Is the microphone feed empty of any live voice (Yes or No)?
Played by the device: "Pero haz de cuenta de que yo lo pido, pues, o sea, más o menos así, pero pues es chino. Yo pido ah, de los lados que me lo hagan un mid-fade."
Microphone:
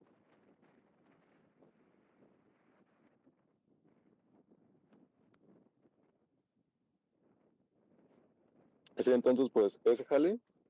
No